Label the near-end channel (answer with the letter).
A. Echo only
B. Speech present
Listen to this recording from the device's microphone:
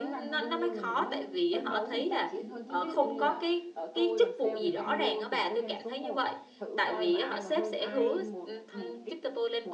B